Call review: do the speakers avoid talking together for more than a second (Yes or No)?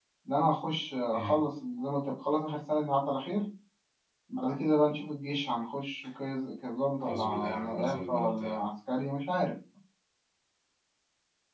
No